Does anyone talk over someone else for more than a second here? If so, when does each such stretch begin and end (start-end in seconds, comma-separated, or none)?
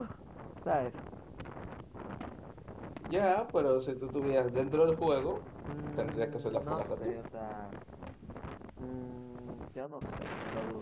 6.0-7.2